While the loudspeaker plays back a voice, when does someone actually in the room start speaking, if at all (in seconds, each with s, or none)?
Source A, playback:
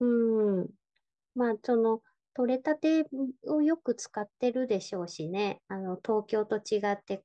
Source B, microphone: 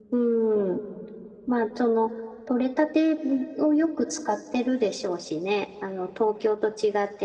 none